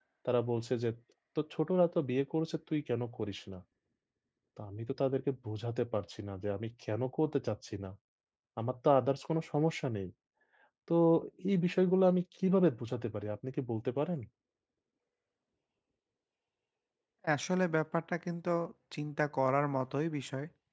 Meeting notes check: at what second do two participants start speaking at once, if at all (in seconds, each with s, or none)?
none